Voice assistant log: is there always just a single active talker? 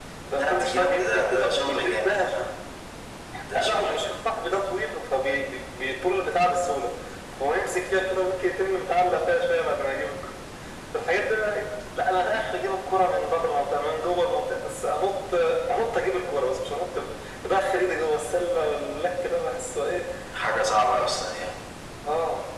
No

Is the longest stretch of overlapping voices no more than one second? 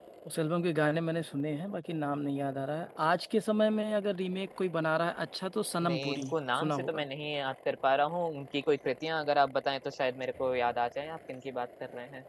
No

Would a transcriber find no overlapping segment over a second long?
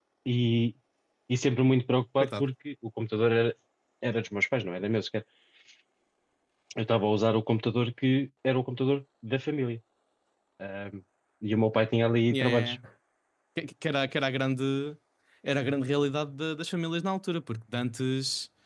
Yes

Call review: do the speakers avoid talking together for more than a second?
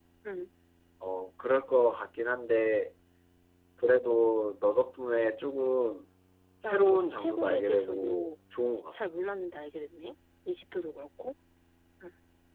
No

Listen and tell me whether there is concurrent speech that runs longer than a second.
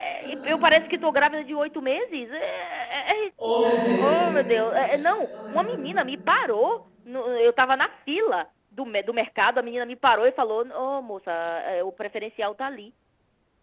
No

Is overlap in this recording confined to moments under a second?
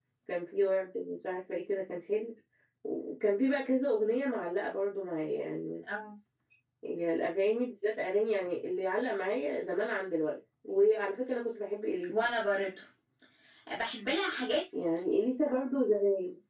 Yes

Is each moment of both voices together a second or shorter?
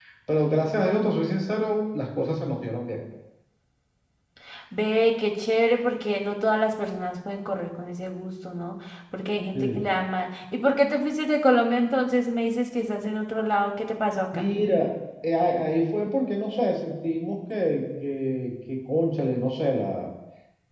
Yes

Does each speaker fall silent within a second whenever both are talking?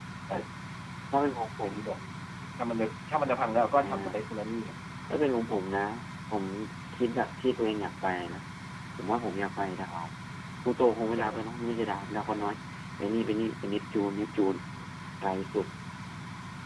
Yes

